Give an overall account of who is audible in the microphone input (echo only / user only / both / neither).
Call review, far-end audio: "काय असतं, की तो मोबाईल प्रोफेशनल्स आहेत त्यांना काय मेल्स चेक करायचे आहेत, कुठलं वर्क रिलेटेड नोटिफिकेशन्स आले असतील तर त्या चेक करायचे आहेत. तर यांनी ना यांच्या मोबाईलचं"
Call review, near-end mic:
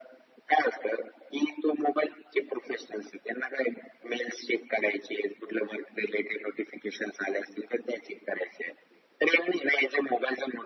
echo only